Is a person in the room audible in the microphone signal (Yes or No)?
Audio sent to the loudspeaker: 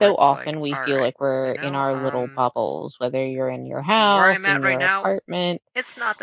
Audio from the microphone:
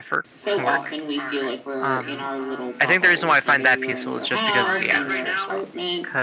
Yes